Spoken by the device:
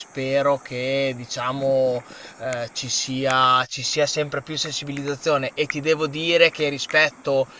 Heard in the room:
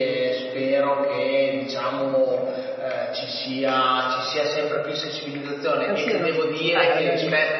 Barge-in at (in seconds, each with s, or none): 5.8 s